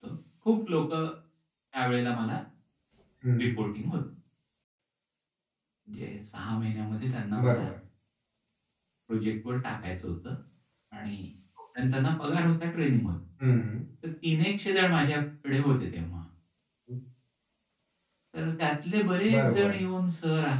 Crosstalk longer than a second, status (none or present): none